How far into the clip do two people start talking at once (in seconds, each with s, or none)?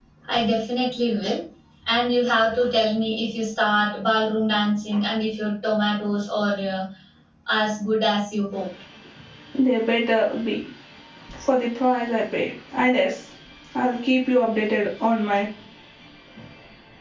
none